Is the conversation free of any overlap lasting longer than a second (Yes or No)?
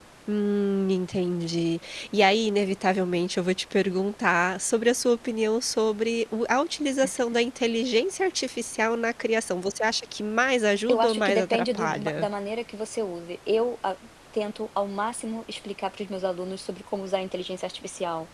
No